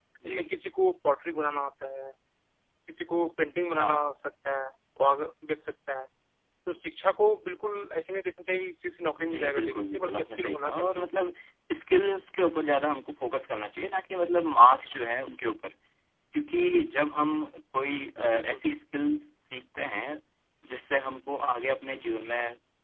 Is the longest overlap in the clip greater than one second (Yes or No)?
Yes